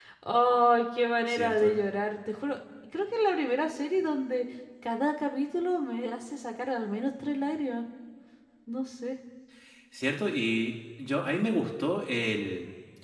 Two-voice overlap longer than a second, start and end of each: none

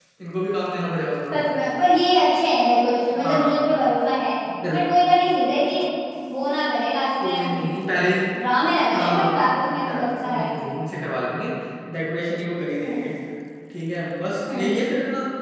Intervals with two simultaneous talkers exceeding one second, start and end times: 8.9-10.5

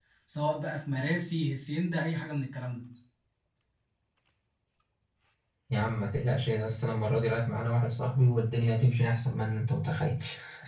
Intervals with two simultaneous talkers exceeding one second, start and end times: none

